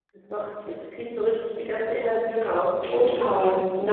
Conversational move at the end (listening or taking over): taking over